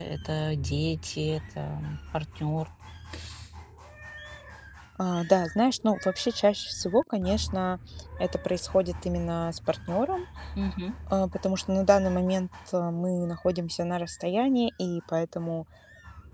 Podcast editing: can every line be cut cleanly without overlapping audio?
Yes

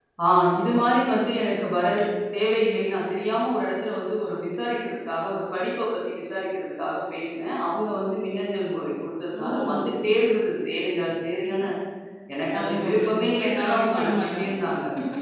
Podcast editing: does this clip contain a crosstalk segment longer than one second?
Yes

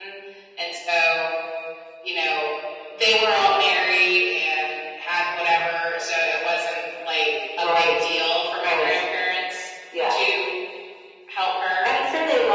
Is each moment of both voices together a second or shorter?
Yes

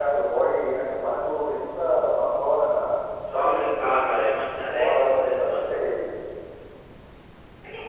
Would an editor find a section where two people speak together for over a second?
Yes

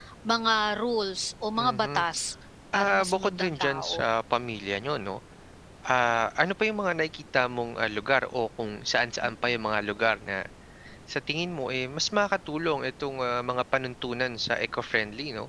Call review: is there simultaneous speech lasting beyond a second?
Yes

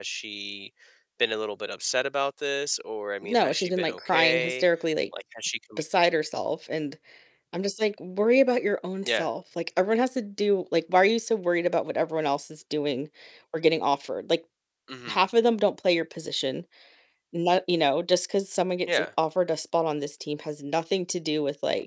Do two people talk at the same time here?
Yes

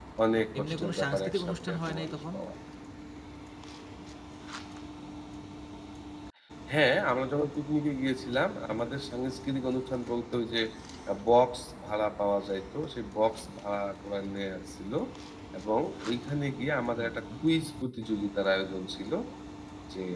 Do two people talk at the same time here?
Yes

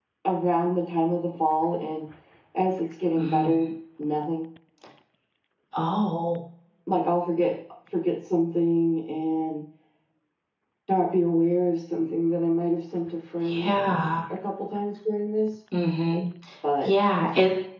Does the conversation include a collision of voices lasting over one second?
No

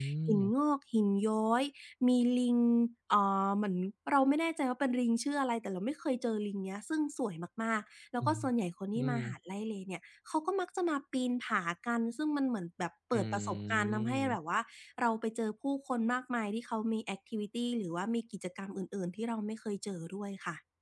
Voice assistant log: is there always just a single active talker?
No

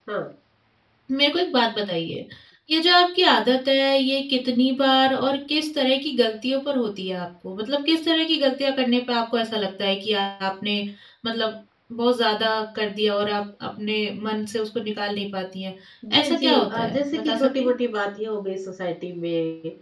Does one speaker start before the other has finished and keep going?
Yes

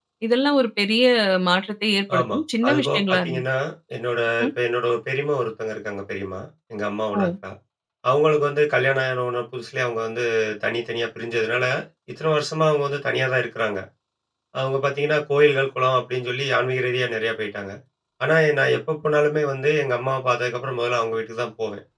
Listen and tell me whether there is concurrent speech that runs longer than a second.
Yes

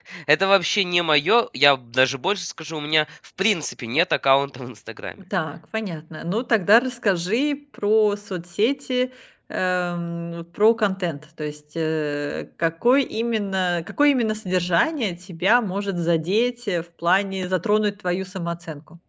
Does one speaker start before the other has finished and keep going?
No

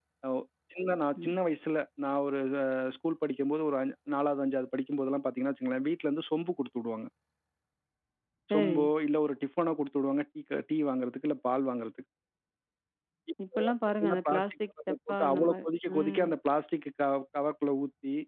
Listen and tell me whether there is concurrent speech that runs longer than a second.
Yes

